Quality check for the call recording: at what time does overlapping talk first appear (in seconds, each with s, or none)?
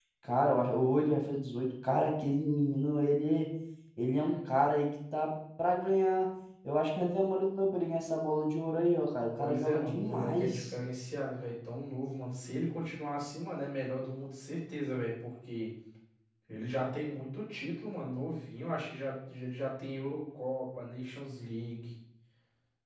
9.4 s